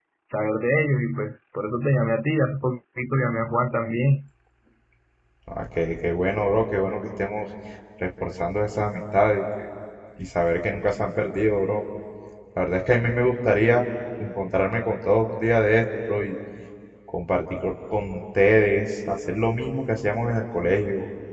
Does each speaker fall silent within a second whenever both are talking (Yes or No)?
Yes